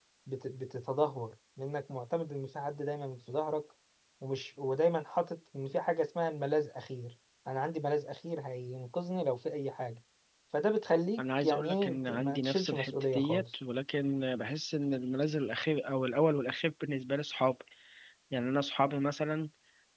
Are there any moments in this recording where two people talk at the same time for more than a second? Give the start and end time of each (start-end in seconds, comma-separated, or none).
11.2-13.4